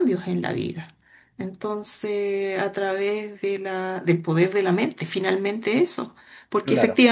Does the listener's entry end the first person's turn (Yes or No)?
No